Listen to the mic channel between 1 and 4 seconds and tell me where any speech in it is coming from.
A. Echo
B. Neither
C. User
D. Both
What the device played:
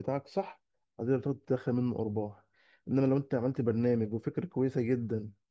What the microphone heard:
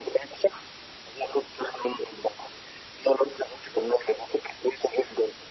A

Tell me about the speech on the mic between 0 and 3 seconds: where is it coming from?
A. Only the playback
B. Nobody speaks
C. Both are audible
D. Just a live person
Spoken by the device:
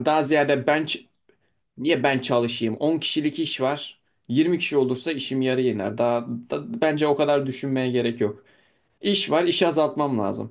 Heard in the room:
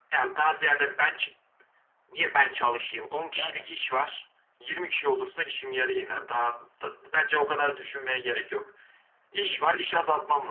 A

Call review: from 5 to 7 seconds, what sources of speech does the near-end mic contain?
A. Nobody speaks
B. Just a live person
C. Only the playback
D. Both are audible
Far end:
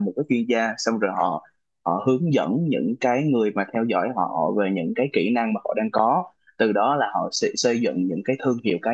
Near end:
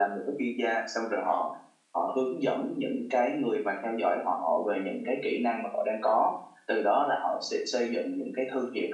C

